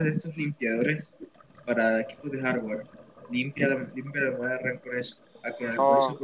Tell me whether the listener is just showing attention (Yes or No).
Yes